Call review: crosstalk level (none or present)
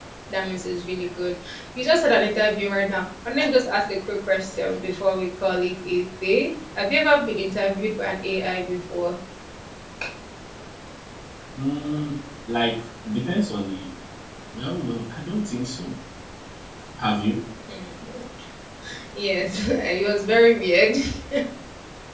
none